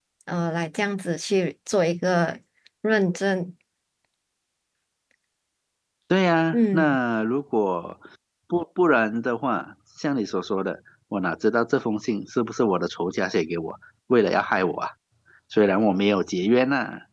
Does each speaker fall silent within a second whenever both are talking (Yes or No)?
Yes